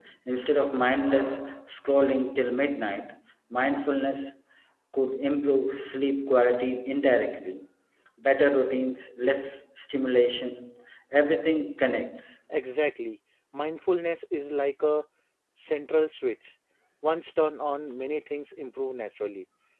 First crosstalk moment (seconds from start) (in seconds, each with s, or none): none